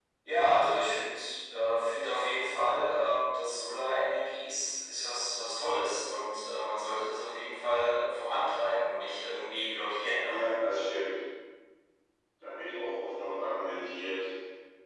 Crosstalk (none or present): none